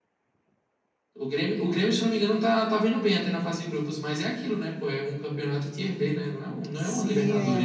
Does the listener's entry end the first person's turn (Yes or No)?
Yes